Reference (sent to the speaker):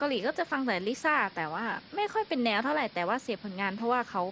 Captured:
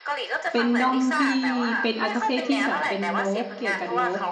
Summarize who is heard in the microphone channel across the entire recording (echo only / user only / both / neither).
both